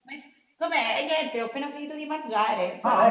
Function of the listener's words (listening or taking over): taking over